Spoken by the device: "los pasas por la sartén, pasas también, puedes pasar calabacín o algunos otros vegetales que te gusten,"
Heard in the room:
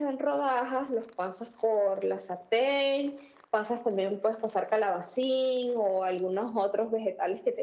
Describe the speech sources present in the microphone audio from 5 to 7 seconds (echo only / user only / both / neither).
echo only